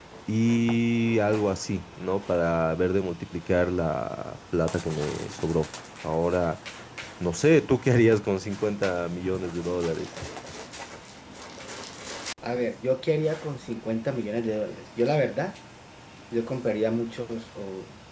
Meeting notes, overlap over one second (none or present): none